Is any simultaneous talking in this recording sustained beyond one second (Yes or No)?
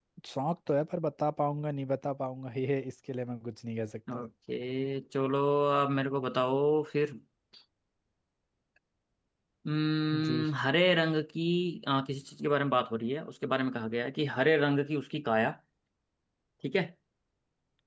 No